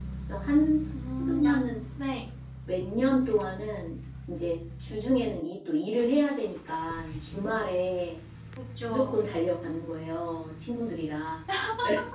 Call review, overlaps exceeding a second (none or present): none